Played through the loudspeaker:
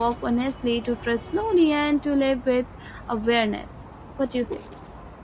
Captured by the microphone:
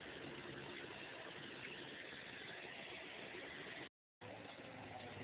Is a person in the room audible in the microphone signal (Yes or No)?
No